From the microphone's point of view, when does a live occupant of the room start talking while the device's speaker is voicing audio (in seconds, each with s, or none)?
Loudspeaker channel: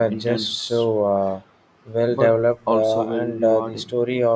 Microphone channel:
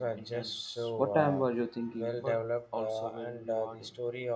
0.9 s